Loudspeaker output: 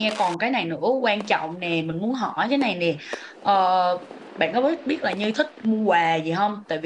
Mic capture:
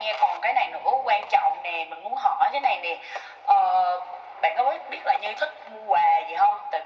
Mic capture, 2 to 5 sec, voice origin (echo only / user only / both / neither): echo only